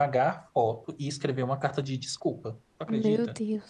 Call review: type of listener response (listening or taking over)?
taking over